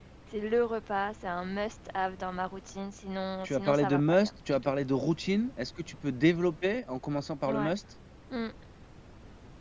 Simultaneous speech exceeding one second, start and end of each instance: 3.4-4.7

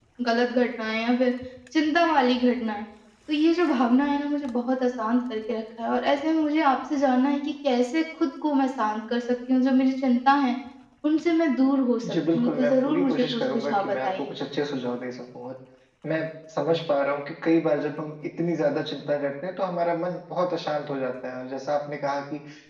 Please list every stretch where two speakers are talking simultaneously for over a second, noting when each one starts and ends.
12.0-14.3

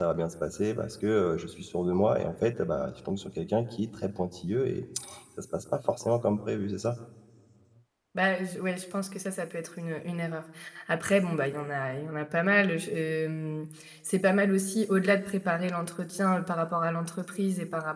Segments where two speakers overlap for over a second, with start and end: none

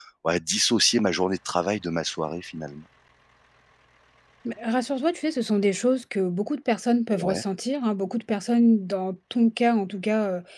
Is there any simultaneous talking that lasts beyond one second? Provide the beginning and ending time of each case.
none

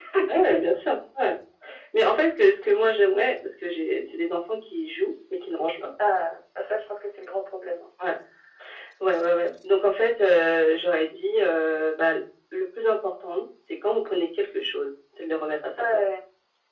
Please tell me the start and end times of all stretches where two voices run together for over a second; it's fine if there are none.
none

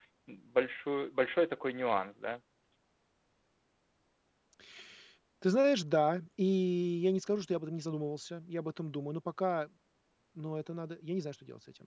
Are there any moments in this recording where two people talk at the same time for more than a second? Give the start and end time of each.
none

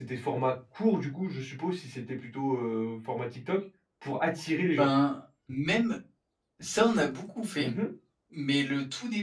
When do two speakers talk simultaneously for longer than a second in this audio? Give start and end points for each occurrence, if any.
none

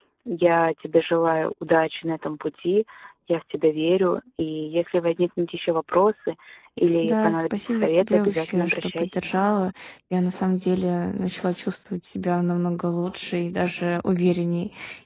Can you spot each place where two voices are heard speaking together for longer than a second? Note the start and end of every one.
7.0-9.3

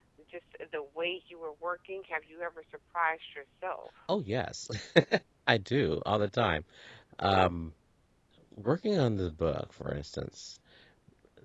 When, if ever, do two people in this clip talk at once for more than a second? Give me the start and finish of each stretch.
none

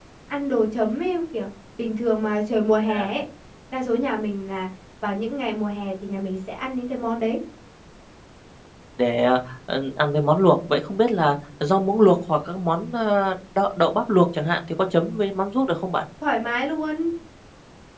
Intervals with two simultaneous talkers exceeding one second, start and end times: none

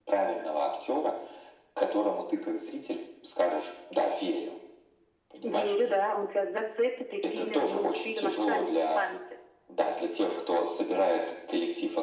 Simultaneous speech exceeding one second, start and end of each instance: 7.3-9.0

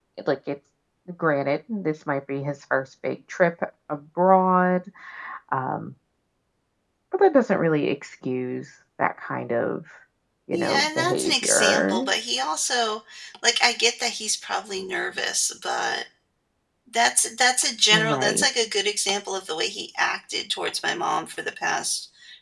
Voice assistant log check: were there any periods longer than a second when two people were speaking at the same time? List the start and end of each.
10.5-12.1

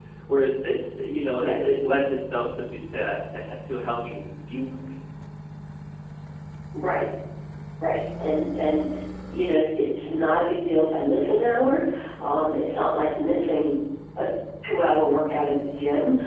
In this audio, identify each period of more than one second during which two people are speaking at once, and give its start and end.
none

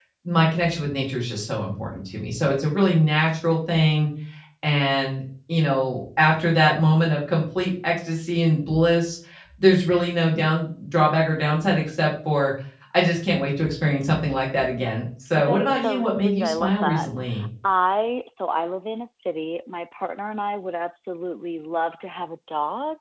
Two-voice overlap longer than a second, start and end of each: 15.4-17.1

